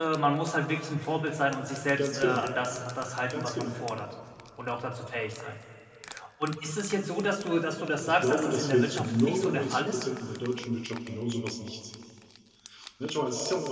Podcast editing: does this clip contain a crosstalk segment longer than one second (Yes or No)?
Yes